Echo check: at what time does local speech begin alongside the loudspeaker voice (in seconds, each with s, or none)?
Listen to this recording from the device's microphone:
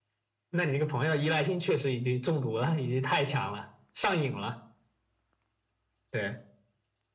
none